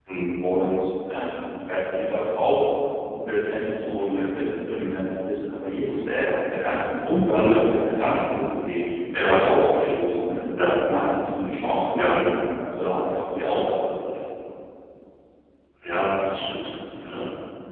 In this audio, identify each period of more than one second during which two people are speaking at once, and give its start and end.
none

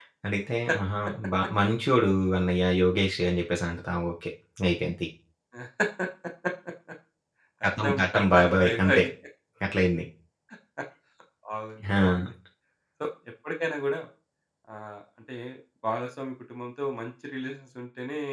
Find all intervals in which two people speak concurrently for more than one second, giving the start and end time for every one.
7.6-9.0

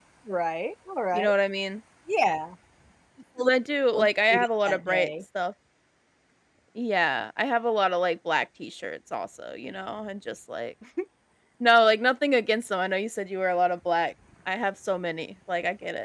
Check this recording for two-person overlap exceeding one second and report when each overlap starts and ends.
3.9-5.1

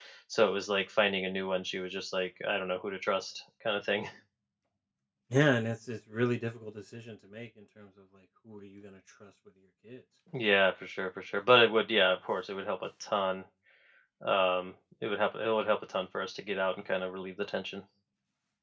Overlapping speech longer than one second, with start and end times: none

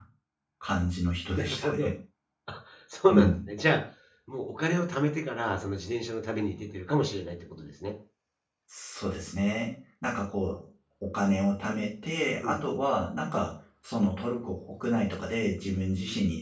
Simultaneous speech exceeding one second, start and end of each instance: none

